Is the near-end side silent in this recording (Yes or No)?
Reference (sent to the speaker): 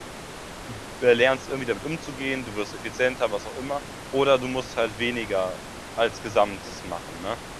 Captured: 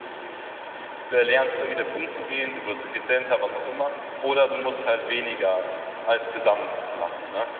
Yes